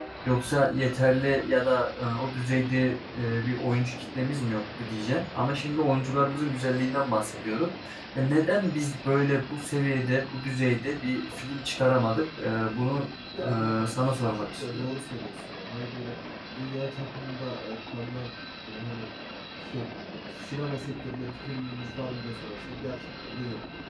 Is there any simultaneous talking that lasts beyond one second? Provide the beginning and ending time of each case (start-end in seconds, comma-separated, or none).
13.4-14.9